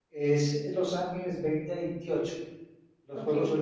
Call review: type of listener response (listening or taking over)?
listening